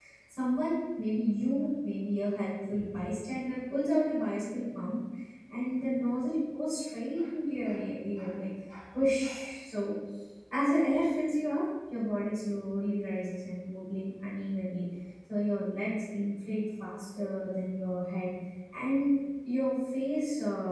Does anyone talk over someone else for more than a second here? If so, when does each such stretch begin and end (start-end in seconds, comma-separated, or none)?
none